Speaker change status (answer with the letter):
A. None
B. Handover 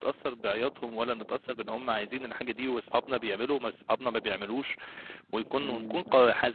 A